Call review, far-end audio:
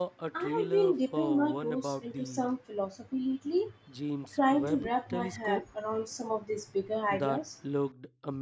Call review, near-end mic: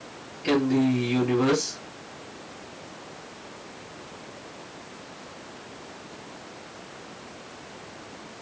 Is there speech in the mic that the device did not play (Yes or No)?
Yes